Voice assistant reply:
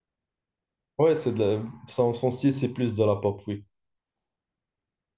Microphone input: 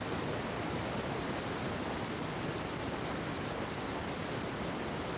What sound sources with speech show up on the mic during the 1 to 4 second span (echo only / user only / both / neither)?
neither